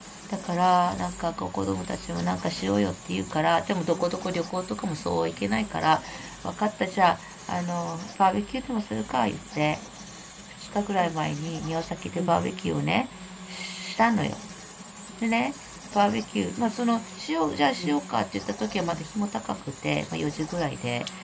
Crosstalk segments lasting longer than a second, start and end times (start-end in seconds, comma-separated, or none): none